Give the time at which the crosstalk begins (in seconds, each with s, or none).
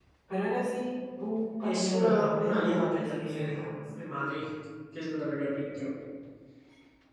1.6 s